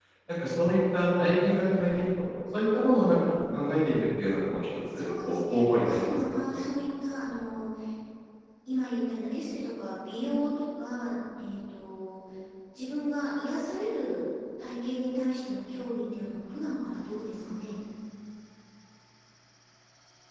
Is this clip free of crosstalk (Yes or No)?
No